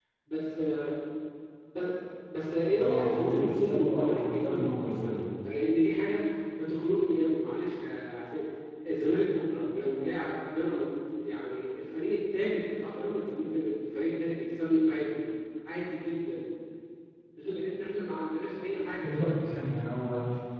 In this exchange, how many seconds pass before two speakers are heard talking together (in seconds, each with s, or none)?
2.8 s